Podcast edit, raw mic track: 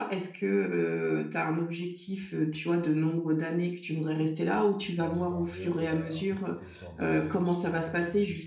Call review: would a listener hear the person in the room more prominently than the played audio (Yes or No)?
No